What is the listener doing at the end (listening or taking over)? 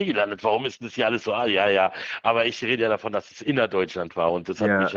listening